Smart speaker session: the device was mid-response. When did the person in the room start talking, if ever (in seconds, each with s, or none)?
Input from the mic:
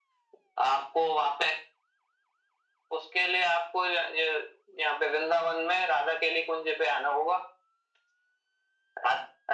none